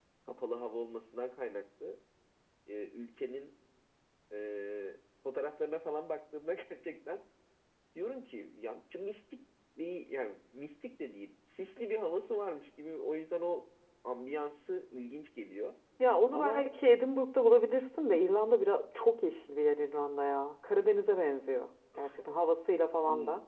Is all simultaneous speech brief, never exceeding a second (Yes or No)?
Yes